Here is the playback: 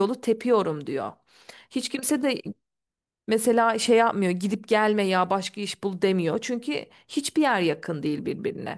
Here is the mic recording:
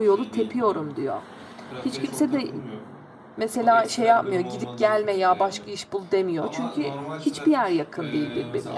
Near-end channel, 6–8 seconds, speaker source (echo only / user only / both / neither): both